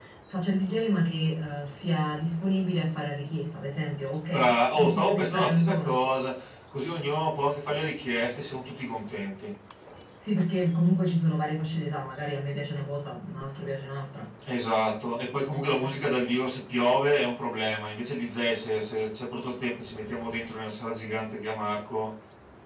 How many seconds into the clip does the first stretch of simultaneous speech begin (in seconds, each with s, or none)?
4.3 s